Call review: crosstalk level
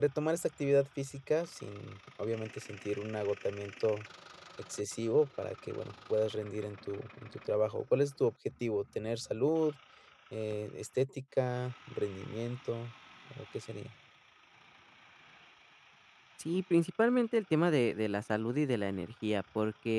none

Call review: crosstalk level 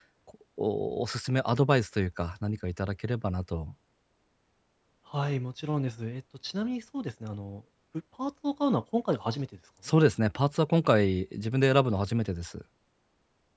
none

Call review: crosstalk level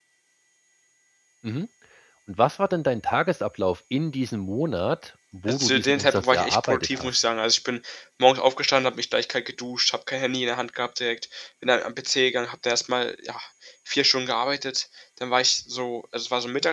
present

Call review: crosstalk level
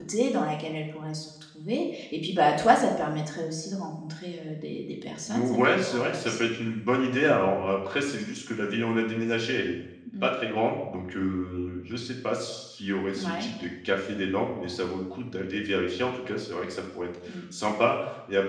present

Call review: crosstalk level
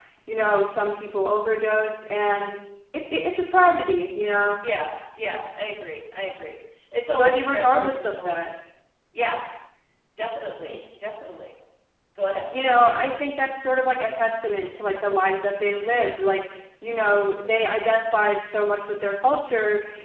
present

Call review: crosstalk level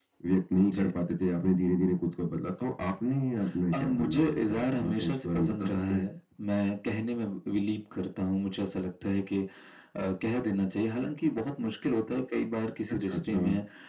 present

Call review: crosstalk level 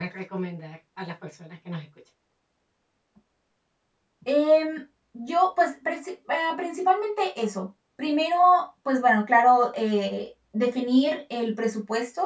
none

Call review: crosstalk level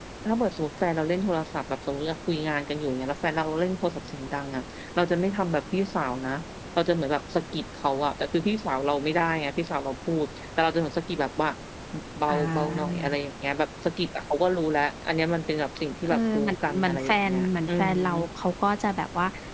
present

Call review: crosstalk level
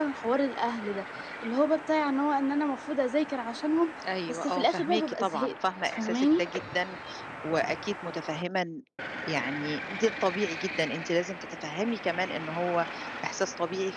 present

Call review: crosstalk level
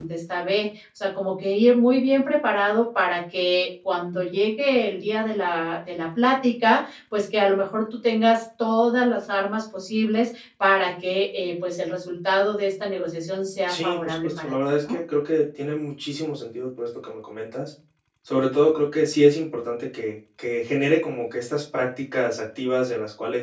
present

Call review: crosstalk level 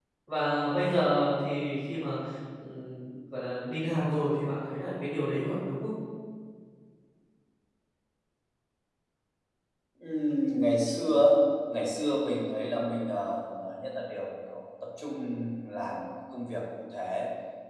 none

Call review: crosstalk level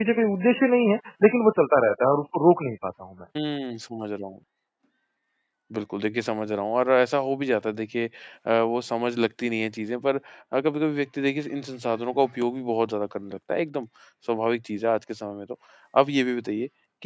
none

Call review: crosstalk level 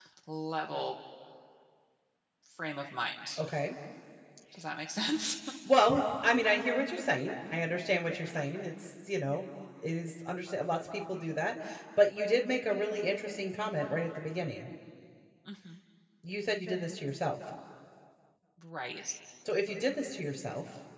none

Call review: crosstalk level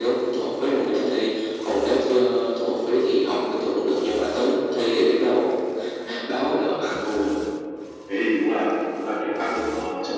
none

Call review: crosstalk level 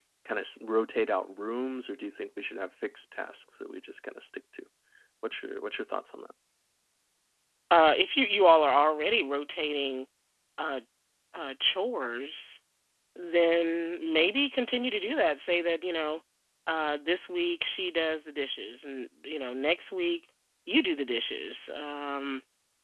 none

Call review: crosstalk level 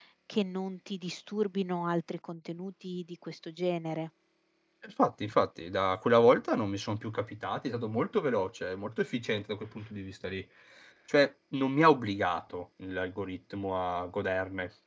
none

